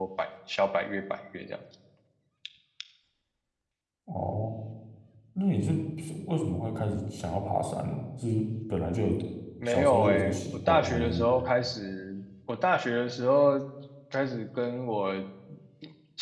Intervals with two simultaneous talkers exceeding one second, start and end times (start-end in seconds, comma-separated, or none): 9.7-11.3